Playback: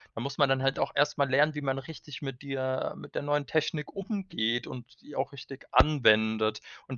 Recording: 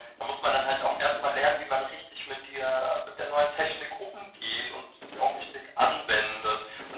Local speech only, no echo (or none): none